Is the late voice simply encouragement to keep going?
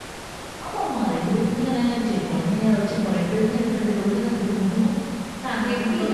No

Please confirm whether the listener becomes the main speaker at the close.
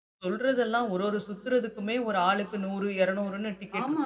Yes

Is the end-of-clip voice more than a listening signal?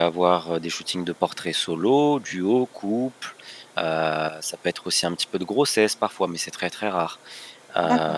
No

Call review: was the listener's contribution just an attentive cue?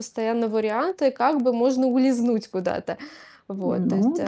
No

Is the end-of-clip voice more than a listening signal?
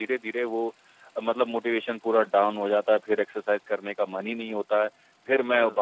No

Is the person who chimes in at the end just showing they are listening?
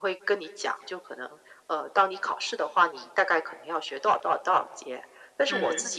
Yes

